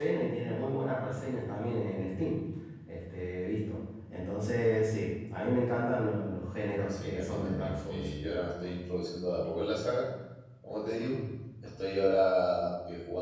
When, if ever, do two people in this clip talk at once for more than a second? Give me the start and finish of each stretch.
6.9-8.1

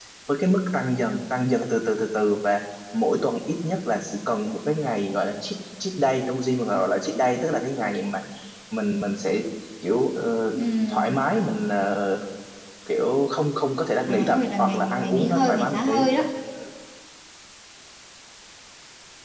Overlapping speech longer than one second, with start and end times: 14.1-15.9

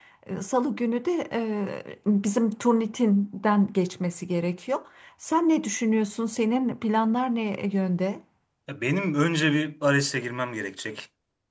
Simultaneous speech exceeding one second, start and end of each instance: none

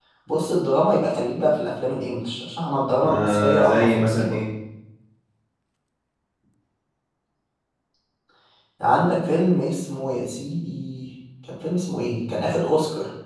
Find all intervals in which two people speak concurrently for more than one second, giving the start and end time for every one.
3.1-4.4

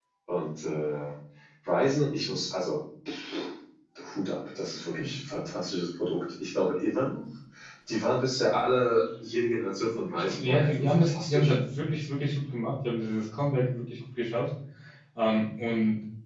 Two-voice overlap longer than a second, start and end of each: 10.1-11.5

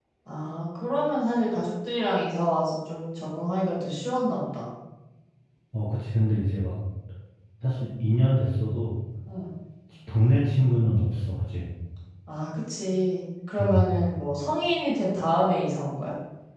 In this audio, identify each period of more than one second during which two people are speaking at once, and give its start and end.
none

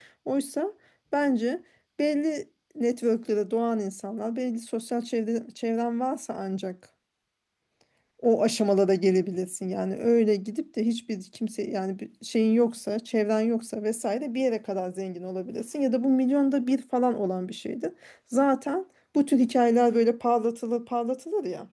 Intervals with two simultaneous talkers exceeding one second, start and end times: none

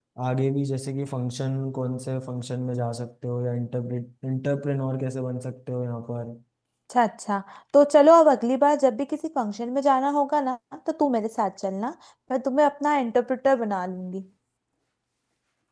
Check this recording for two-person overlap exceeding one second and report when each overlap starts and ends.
none

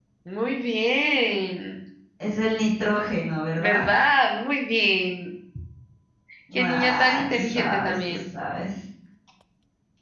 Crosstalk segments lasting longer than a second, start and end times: 6.6-8.2

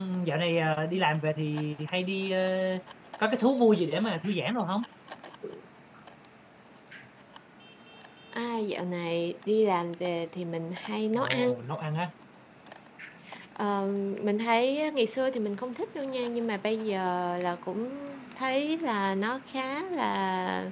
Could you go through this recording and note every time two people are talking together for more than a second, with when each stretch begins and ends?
none

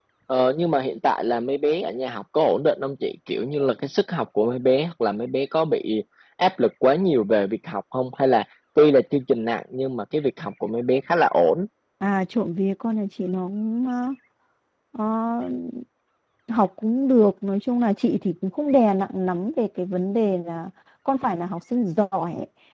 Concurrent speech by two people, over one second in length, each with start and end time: none

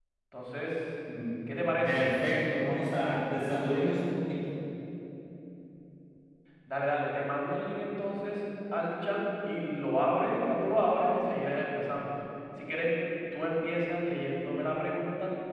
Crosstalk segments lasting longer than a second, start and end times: none

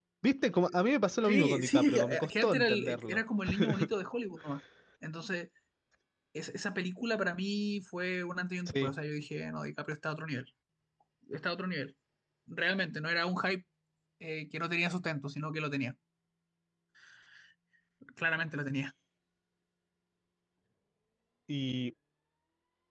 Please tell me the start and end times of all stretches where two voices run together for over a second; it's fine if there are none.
1.2-3.2

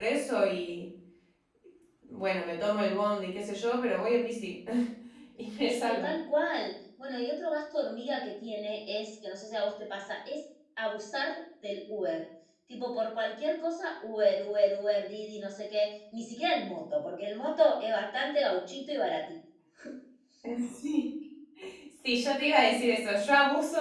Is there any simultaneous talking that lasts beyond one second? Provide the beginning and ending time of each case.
none

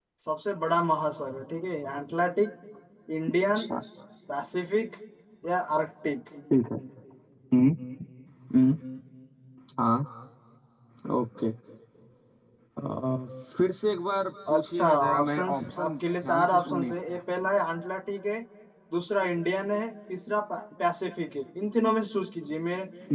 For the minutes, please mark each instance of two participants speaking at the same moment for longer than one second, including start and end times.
14.5-17.2

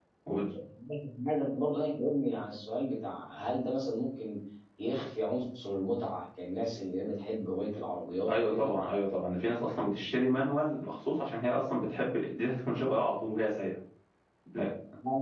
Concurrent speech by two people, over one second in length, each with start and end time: none

